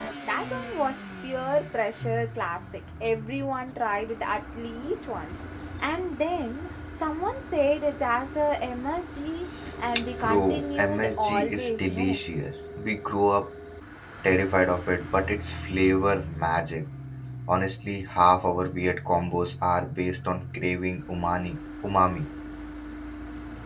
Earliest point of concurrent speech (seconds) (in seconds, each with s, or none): 10.2 s